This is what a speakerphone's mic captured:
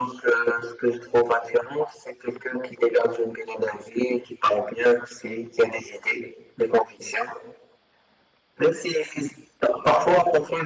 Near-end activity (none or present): none